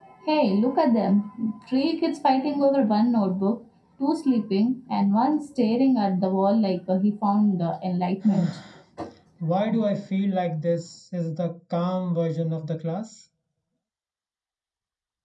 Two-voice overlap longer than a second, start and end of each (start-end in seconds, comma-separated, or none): none